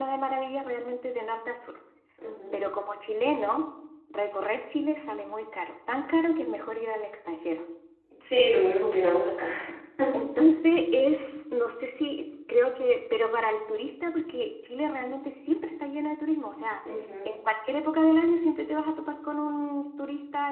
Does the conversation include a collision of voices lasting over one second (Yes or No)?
No